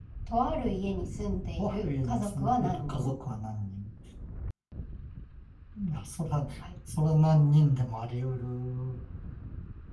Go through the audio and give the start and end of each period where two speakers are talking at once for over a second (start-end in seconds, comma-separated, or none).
1.6-3.1